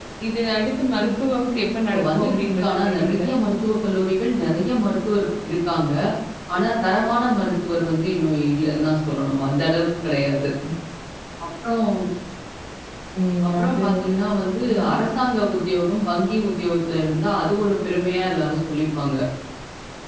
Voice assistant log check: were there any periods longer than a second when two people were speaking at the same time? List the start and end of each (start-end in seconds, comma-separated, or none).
1.9-3.2